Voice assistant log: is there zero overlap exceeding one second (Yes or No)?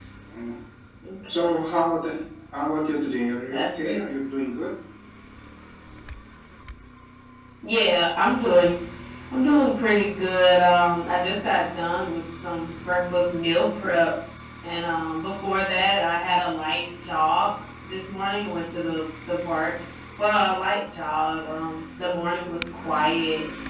Yes